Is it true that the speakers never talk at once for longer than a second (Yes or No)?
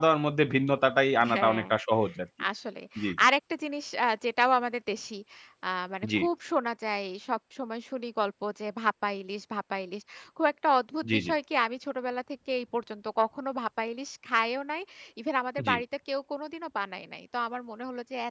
Yes